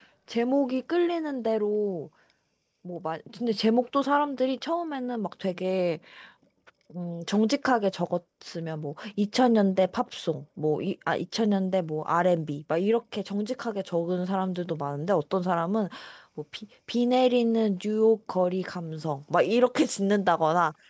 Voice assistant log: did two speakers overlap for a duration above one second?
No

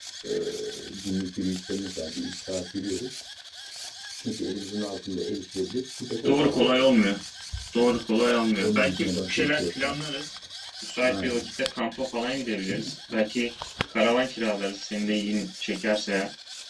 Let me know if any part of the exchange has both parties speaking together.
Yes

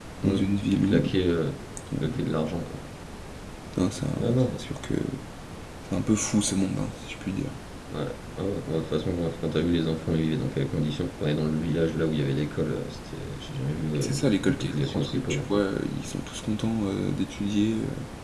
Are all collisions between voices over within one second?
No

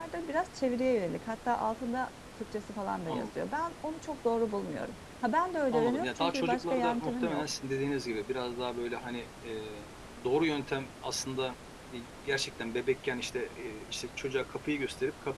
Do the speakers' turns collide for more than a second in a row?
Yes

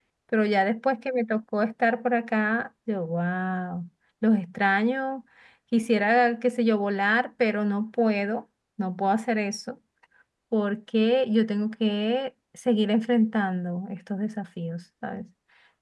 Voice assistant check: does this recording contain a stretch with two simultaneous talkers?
No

